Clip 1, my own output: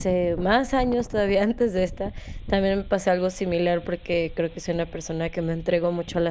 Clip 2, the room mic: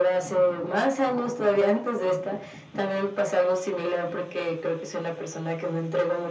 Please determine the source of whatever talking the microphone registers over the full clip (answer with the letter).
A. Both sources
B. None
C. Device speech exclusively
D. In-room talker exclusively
C